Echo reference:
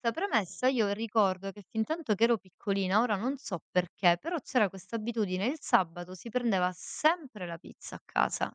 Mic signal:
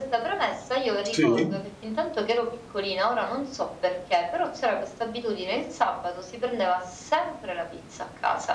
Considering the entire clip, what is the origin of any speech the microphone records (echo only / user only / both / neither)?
both